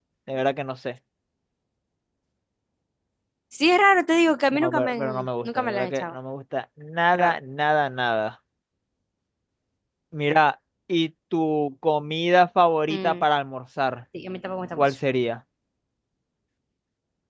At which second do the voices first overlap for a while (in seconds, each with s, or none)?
4.5 s